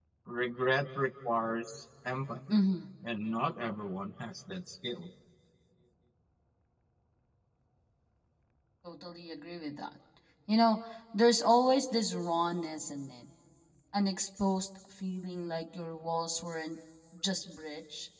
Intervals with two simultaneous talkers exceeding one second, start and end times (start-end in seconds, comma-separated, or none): none